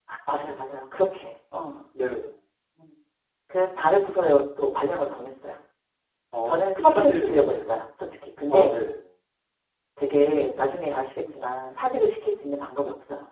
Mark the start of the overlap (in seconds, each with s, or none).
6.4 s